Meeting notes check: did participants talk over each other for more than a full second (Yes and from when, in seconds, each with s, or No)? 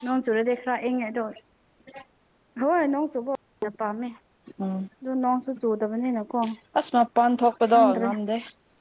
No